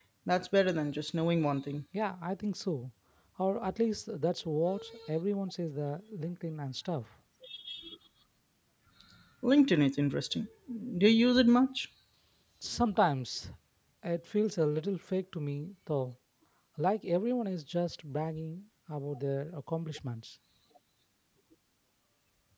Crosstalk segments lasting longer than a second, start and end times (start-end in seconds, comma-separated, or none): none